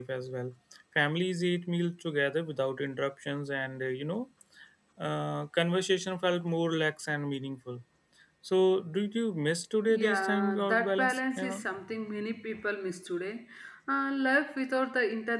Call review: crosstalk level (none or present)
present